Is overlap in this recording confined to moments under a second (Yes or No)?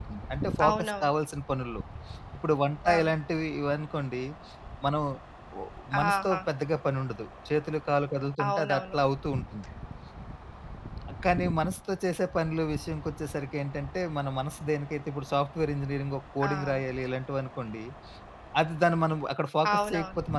Yes